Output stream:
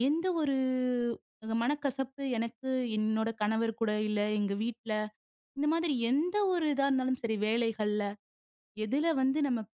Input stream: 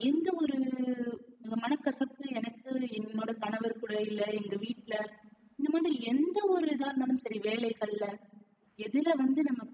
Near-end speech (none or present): none